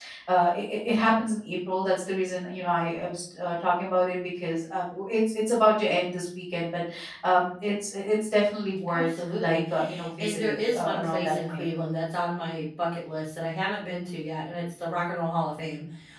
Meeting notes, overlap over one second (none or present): present